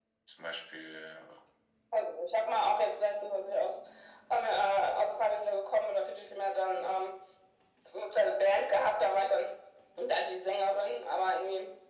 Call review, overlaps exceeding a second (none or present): none